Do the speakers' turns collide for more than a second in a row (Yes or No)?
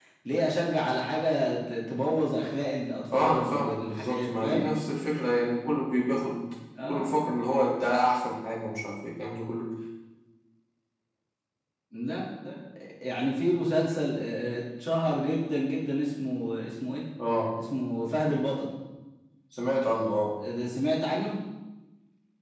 Yes